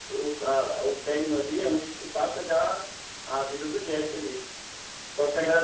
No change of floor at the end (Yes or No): Yes